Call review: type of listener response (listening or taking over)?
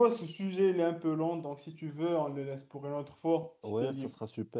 taking over